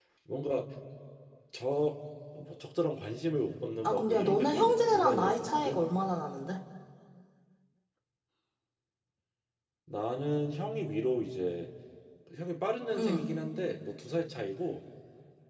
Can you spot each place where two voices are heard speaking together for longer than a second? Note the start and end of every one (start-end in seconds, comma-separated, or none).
3.8-5.9